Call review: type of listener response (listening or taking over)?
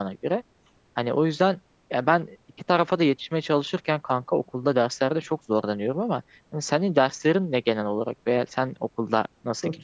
taking over